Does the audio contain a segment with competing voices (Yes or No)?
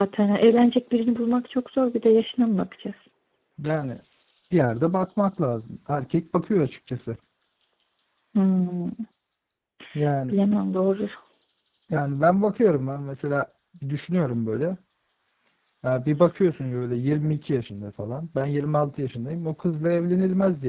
No